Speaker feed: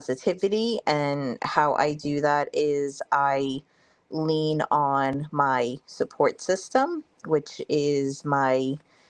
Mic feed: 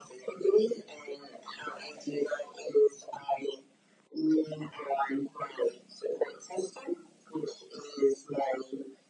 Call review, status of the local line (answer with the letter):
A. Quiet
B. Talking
A